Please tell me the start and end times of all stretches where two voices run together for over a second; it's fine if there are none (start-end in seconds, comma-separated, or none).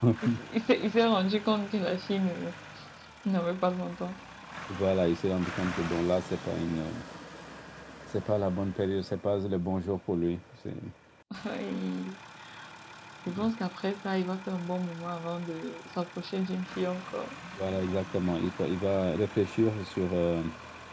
none